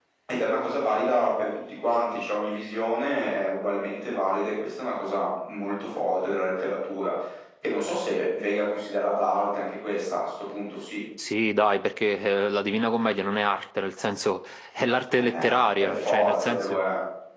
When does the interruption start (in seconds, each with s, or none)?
15.1 s